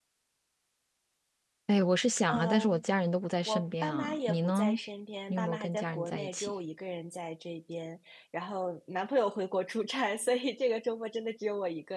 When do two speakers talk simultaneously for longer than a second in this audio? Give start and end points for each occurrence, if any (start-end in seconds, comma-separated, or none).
3.5-4.8, 5.3-6.5